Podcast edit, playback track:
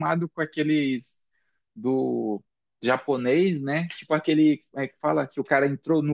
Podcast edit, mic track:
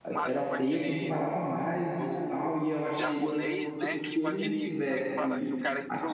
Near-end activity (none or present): present